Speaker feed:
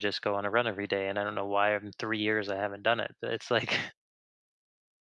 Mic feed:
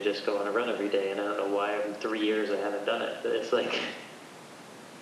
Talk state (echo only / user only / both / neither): echo only